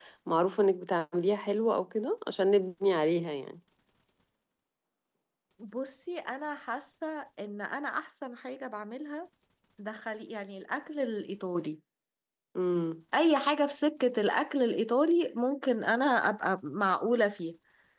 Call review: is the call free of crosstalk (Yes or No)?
Yes